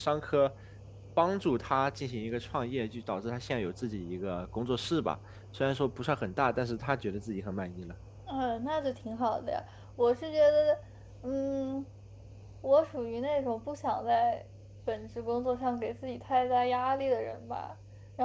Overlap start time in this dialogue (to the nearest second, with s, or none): none